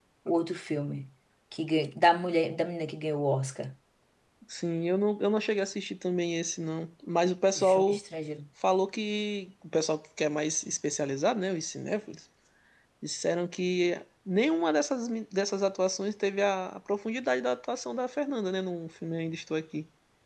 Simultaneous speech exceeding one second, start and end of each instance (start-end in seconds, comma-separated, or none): none